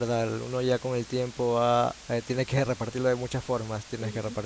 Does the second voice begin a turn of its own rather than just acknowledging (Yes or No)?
No